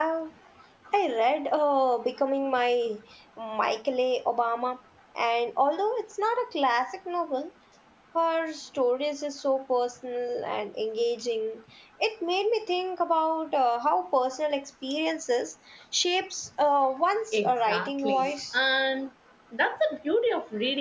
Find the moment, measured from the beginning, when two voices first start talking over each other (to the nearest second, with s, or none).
17 s